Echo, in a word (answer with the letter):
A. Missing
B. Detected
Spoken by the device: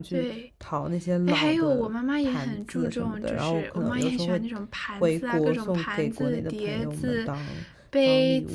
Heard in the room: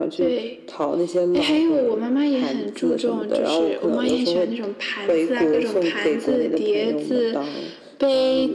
B